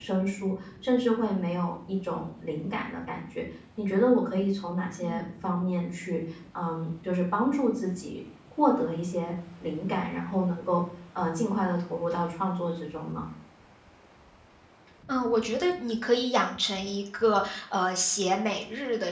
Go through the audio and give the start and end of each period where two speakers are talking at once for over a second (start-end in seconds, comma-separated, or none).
none